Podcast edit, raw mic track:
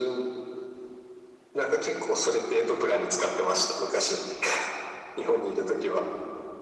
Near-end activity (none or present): none